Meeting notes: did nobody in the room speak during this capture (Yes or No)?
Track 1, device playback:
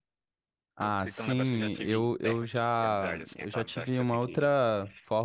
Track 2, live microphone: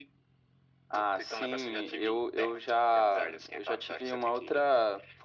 Yes